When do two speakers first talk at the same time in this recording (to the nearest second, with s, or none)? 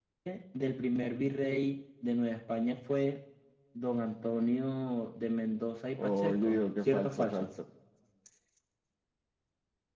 6 s